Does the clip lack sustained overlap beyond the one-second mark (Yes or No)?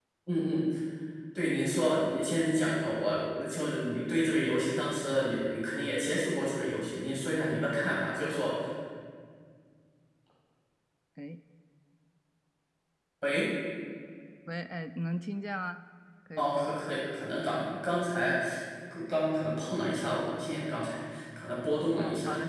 Yes